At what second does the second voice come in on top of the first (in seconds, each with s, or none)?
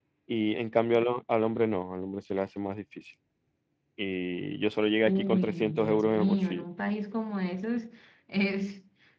5.0 s